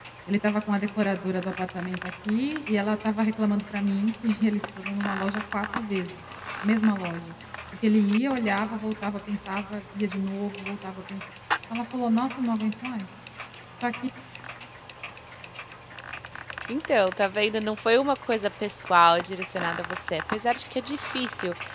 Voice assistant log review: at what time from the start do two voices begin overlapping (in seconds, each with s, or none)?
none